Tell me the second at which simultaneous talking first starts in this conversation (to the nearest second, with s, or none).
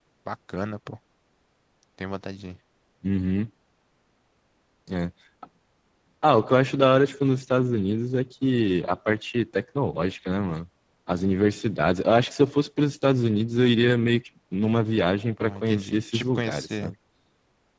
15 s